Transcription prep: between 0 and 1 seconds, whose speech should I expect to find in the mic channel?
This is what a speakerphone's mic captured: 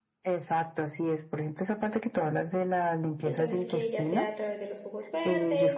echo only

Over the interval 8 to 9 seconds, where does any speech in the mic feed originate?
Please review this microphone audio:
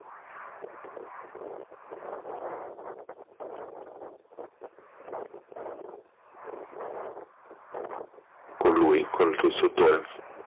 user only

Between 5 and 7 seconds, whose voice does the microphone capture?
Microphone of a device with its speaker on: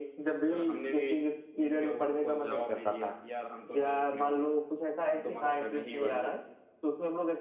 echo only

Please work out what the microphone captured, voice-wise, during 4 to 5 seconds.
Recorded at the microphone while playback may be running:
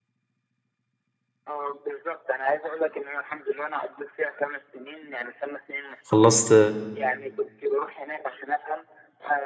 echo only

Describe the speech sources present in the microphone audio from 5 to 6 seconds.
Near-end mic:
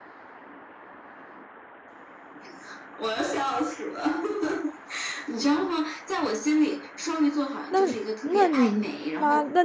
echo only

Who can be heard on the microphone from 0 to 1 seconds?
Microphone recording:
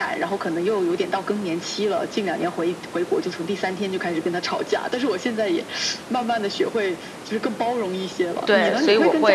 echo only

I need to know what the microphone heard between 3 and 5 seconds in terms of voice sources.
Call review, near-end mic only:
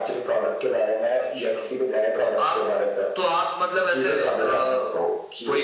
echo only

